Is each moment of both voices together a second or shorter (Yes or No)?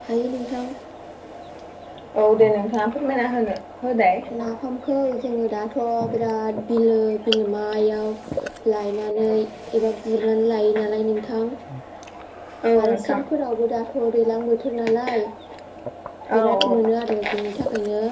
Yes